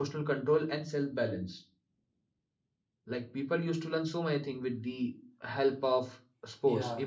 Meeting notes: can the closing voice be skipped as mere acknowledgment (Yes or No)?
No